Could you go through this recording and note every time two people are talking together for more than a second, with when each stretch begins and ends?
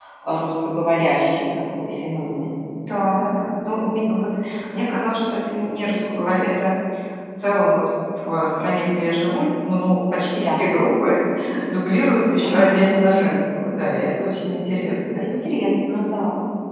none

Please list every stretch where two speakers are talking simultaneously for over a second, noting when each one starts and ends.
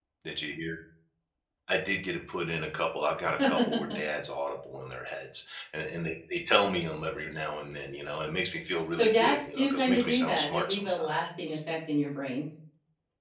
8.9-11.1

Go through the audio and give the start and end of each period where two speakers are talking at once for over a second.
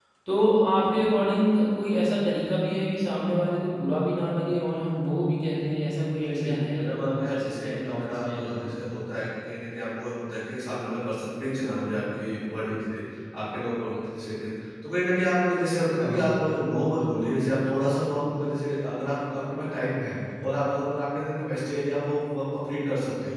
6.2-8.8

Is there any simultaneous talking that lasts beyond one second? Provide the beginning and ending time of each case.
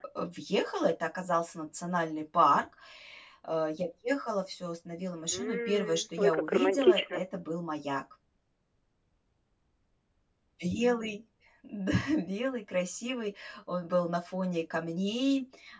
5.3-7.2

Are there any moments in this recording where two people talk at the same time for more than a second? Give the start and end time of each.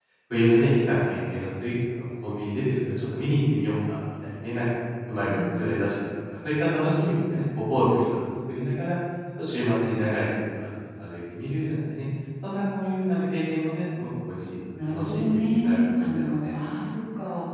14.9-16.6

